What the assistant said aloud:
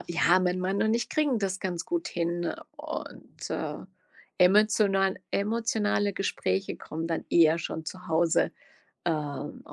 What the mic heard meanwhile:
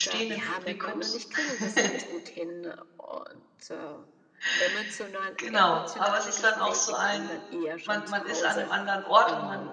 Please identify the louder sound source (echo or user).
user